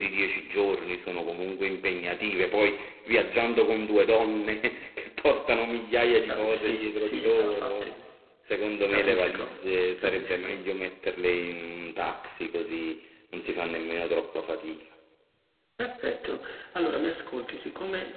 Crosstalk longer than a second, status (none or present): present